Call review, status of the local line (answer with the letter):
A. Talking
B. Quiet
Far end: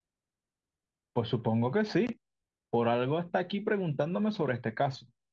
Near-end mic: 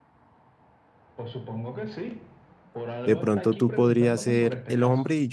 A